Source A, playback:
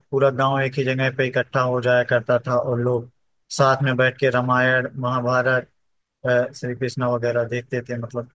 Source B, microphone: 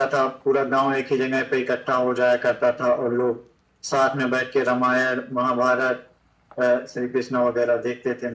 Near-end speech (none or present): none